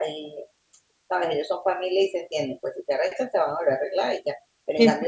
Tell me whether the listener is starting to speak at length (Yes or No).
No